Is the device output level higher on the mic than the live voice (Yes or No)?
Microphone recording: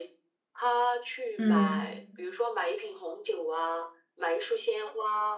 No